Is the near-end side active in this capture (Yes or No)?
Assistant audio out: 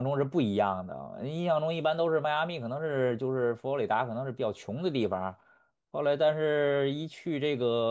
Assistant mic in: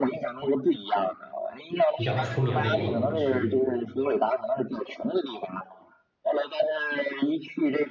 Yes